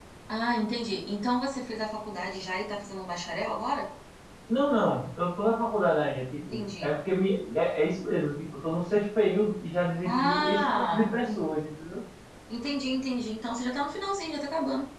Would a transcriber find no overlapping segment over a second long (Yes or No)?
No